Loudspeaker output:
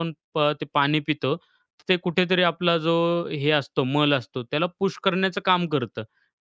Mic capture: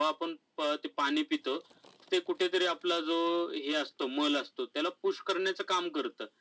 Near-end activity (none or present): none